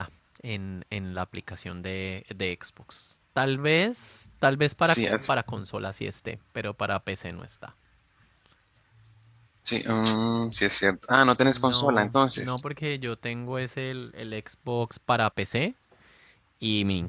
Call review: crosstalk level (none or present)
present